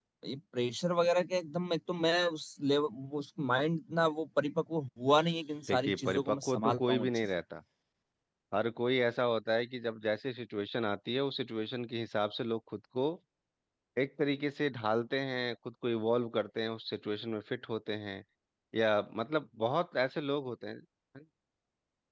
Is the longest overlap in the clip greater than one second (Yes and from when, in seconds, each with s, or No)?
Yes, from 5.7 s